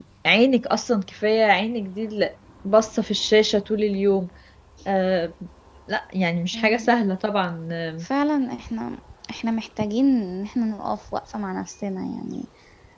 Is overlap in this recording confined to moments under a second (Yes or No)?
Yes